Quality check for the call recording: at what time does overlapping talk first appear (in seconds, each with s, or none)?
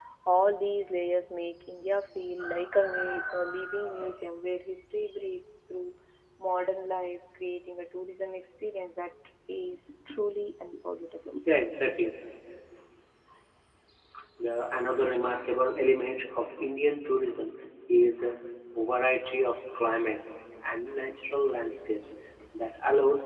none